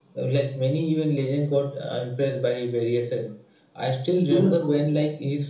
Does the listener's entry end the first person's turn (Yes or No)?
No